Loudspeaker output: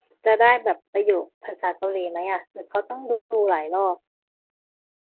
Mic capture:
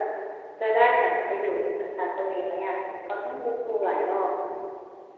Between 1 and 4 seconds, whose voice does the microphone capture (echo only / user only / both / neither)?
echo only